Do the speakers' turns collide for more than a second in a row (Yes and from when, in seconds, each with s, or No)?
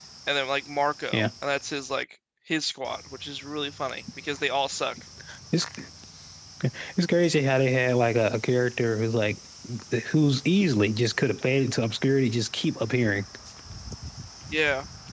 No